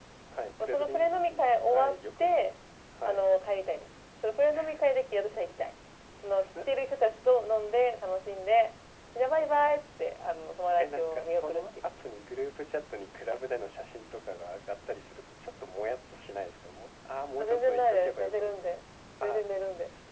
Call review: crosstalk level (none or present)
present